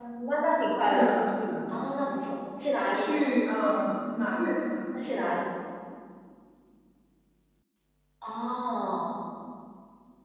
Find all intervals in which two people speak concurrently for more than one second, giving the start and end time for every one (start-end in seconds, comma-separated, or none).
none